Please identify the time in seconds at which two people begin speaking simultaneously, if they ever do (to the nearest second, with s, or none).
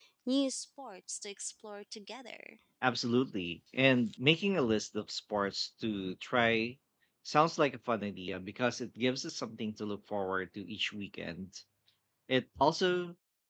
none